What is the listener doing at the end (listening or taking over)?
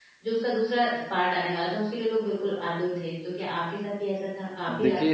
taking over